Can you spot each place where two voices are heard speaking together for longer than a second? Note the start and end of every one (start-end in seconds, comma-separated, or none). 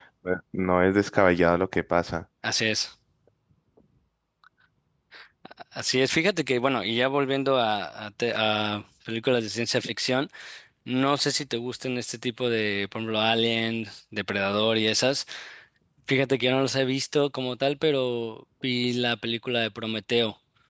none